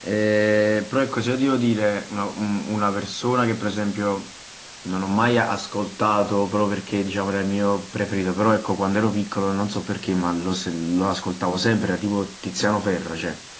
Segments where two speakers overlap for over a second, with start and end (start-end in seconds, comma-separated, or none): none